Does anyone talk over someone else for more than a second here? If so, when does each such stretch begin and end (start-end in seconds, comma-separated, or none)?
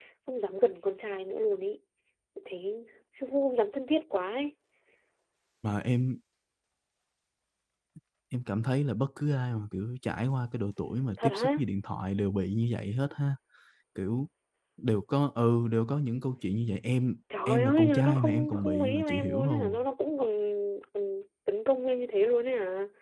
17.5-19.8